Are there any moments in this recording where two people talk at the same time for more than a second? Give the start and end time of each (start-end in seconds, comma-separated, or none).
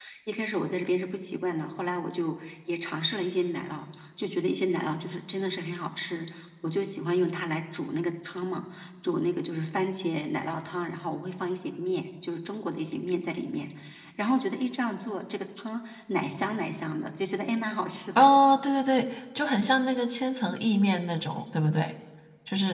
none